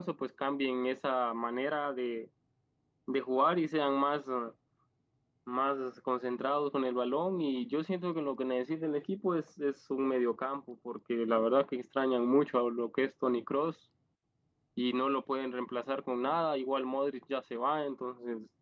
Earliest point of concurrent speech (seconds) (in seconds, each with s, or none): none